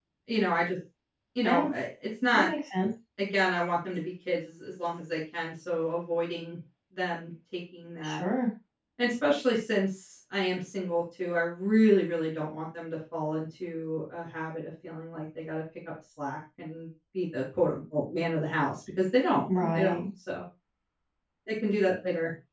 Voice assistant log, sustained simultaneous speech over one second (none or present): none